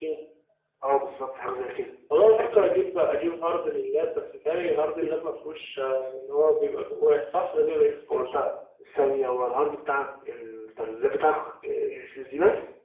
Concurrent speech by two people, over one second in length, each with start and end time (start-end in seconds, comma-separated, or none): none